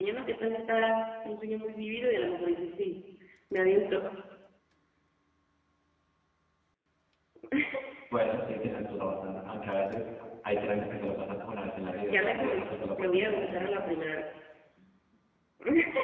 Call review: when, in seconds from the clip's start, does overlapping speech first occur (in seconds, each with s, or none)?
12.1 s